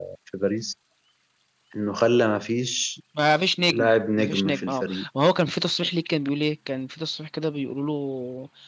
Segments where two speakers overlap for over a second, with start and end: 3.7-5.0

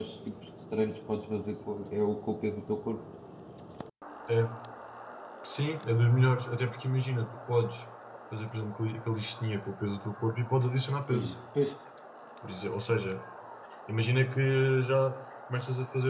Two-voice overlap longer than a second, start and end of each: none

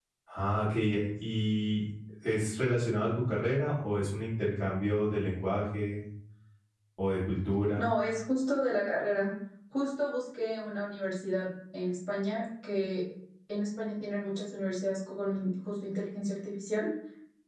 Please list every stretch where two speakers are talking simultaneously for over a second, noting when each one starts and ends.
none

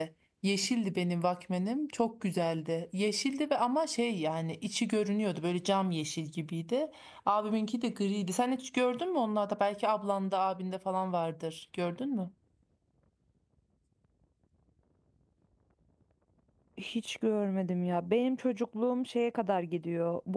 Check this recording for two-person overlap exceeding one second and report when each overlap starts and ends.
none

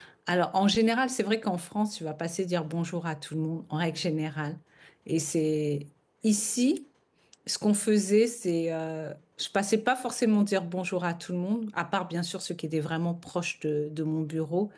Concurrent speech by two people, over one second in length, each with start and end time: none

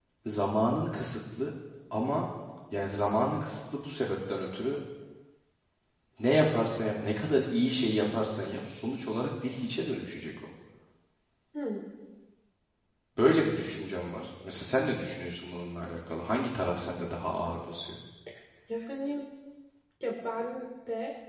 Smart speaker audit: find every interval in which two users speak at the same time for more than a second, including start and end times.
none

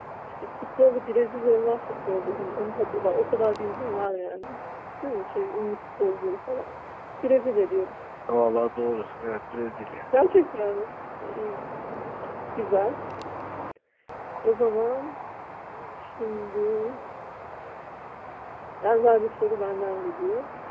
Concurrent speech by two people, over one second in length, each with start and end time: none

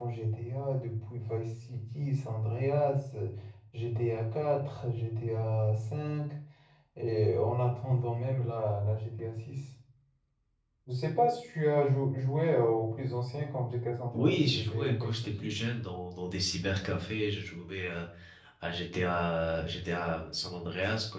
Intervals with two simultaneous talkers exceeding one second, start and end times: 14.1-15.5

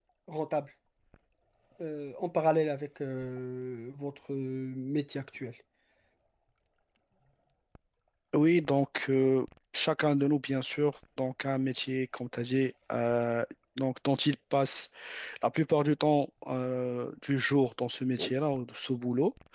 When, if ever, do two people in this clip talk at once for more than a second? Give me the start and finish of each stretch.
none

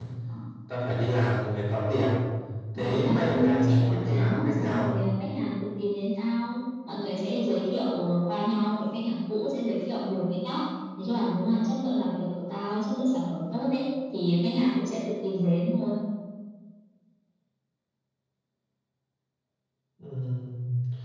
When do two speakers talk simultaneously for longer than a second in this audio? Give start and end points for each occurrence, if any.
2.8-4.8

